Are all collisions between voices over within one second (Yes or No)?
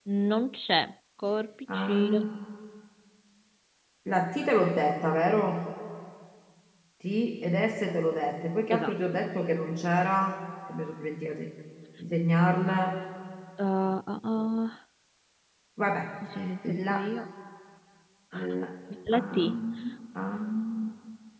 Yes